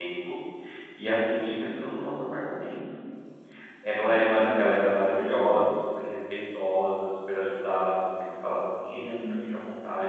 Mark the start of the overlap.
4.1 s

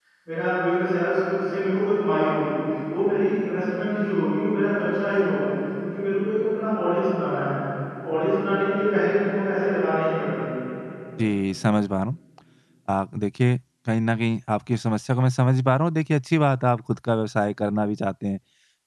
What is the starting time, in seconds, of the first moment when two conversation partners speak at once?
none

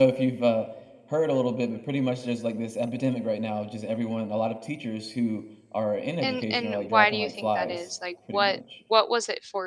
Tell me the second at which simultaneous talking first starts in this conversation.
6.2 s

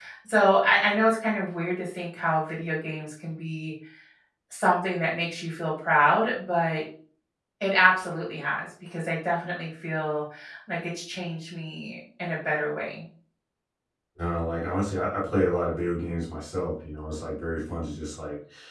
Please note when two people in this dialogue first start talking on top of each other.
none

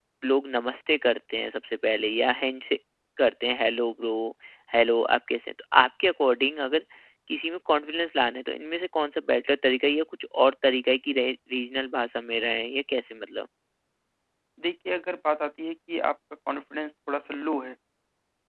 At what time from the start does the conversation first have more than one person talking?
none

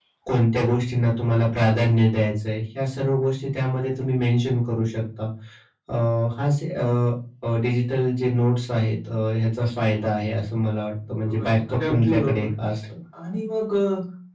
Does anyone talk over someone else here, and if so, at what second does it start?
11.3 s

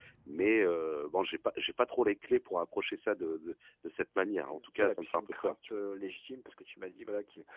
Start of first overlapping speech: 4.5 s

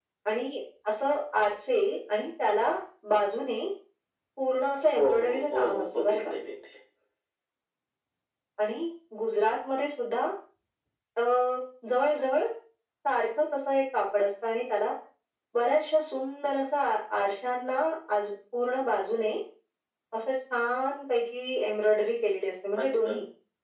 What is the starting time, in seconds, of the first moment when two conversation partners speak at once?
5.0 s

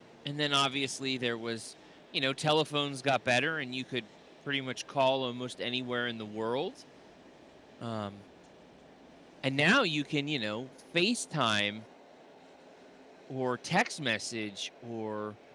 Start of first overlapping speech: none

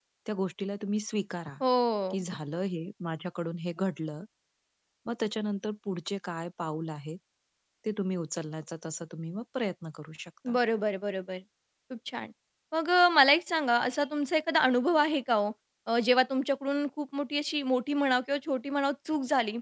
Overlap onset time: none

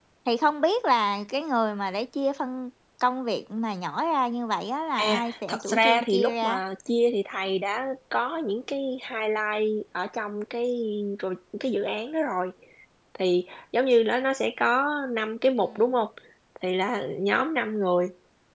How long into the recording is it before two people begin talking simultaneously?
5.0 s

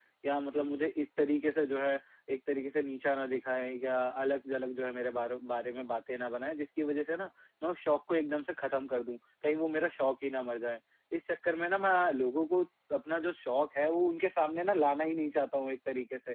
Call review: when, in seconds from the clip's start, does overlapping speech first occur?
none

